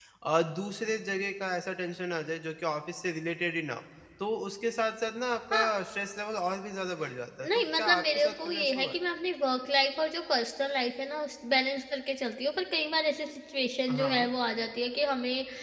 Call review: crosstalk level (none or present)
present